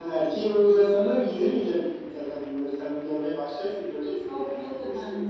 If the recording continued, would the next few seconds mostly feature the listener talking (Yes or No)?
Yes